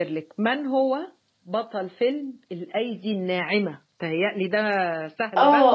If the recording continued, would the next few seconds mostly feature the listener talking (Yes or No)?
Yes